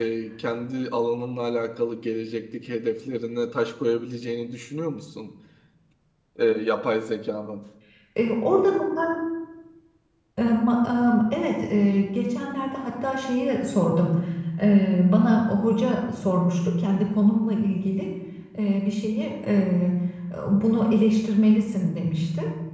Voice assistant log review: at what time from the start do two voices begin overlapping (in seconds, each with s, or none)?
none